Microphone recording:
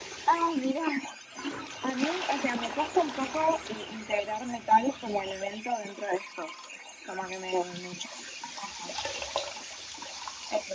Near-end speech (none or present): none